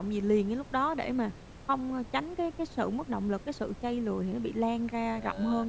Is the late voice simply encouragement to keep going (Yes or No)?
No